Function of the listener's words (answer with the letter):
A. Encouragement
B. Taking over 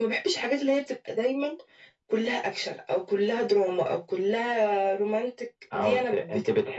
B